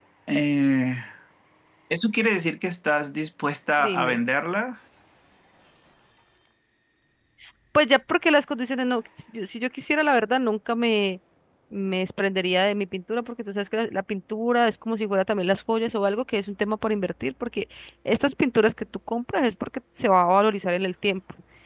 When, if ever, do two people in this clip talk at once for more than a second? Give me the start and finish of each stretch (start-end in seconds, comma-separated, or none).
none